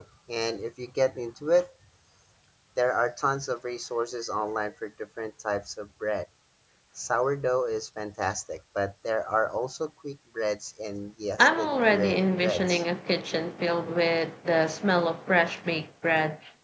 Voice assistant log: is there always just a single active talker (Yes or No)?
No